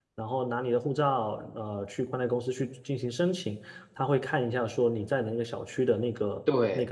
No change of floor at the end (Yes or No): Yes